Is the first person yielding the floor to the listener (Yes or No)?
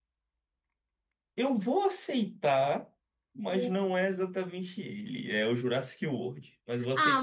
Yes